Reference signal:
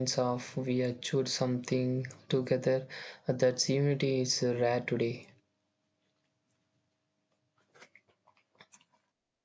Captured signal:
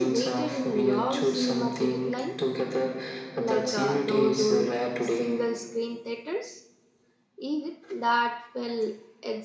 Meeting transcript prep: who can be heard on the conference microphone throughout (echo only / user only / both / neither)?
both